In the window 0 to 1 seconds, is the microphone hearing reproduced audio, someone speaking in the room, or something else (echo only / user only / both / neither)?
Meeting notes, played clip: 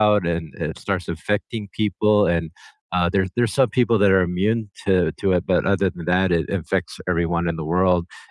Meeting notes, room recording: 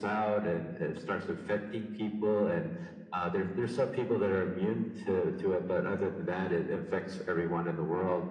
echo only